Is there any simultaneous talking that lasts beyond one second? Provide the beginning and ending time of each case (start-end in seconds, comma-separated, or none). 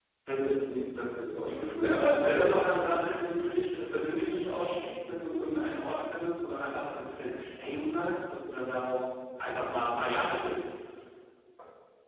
1.3-2.7